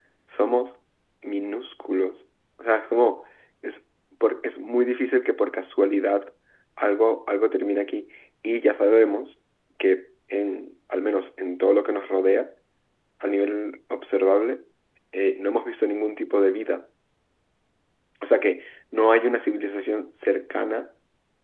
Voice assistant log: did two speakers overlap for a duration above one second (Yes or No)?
No